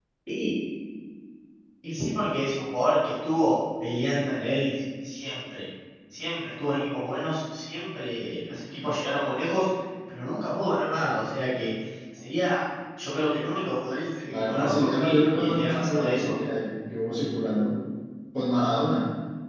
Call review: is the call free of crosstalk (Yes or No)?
No